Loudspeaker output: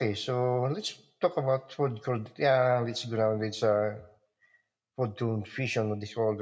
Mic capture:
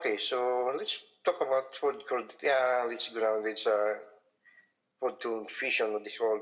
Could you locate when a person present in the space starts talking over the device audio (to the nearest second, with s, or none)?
none